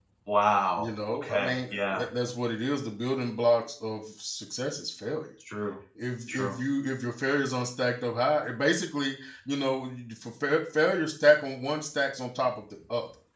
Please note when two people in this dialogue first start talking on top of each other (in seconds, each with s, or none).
0.8 s